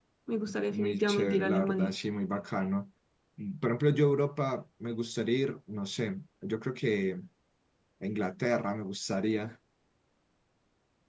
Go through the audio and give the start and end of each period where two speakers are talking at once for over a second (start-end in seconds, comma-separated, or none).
0.7-1.9